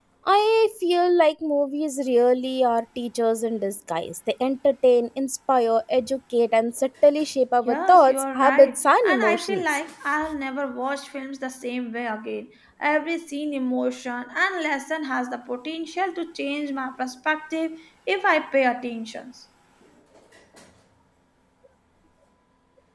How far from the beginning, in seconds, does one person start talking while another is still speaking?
7.7 s

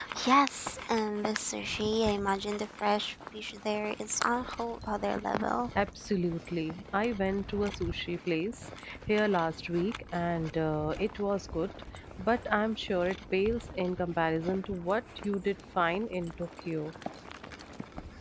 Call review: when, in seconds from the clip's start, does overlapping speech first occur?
none

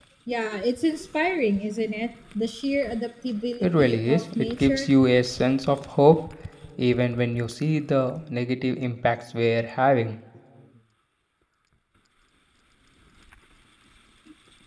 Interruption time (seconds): 3.6 s

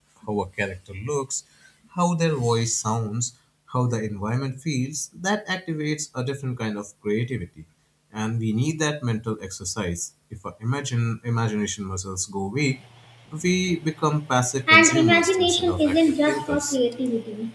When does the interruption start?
14.7 s

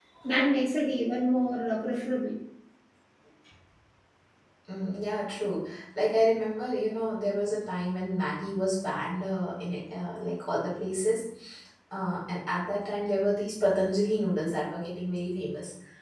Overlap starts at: none

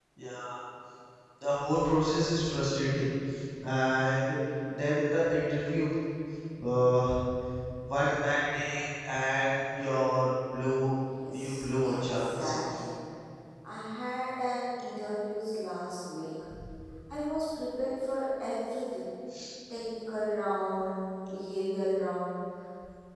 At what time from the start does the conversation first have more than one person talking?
11.2 s

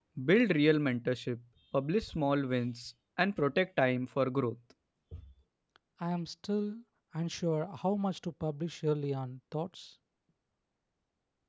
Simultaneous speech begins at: none

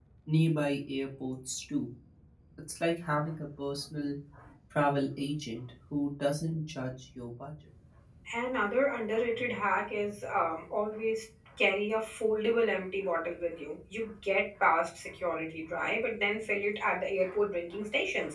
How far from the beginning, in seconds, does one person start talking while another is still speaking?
none

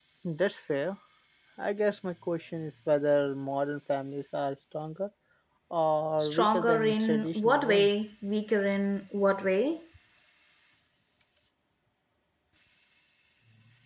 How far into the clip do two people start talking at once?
6.2 s

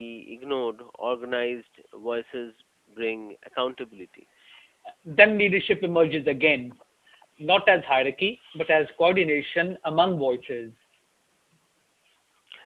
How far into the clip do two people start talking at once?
none

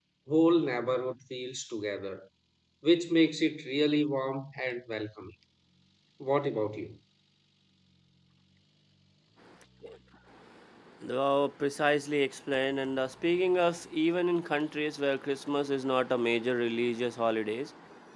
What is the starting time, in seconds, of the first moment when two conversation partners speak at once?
none

